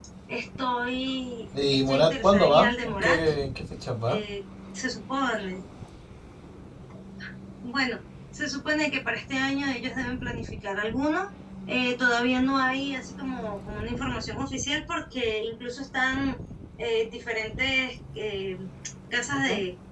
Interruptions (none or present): present